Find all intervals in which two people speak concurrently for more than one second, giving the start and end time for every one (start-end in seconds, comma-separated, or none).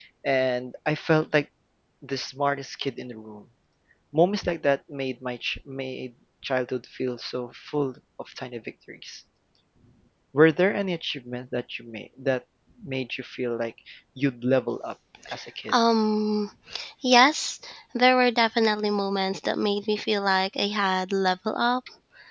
none